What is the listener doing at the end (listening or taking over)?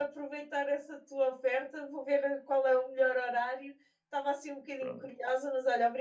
listening